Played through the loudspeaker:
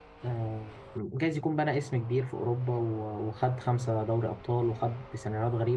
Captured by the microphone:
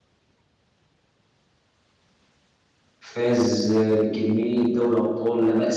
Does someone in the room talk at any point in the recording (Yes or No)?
Yes